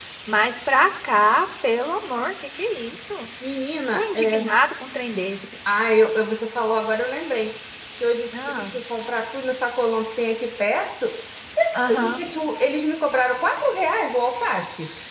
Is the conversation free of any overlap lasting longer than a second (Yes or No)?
Yes